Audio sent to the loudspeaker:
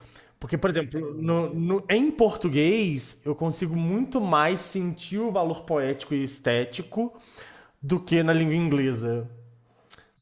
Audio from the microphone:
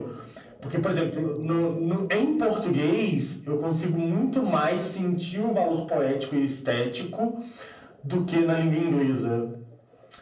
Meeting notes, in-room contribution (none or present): none